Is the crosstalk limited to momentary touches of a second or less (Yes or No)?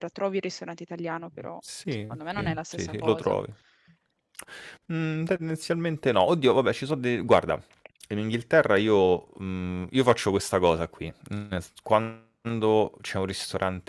No